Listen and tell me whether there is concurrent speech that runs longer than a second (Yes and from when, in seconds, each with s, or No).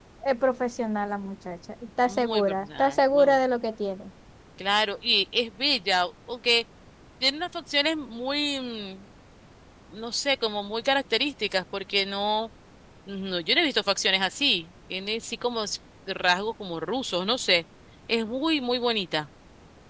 Yes, from 2.1 s